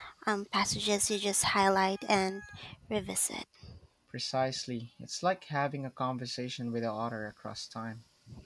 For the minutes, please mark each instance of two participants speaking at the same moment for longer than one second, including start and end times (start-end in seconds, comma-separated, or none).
none